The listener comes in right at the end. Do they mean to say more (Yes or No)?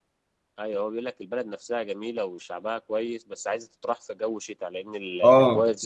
Yes